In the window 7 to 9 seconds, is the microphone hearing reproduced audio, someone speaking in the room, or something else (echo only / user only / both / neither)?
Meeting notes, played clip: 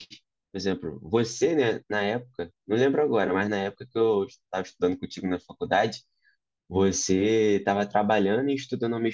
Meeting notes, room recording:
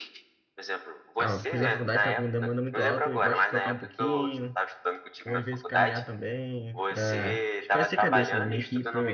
both